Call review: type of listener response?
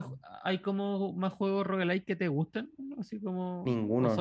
taking over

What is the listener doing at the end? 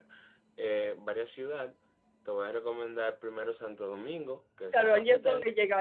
taking over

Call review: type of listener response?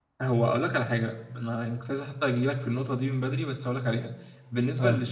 listening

